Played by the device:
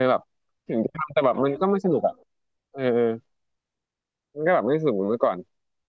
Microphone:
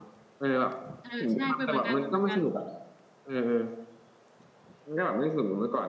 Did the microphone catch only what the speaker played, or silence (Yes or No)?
No